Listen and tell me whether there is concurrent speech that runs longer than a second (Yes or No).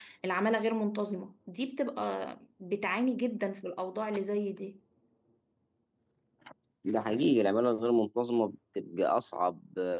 No